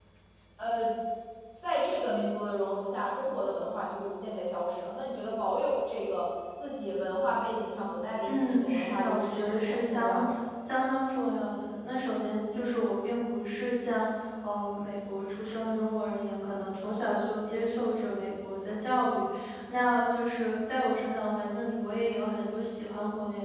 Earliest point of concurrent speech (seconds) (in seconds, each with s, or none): 8.3 s